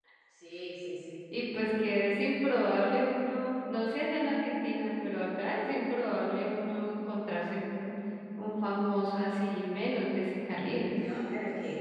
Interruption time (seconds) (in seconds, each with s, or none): none